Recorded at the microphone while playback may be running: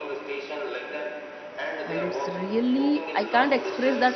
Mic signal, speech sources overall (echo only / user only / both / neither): both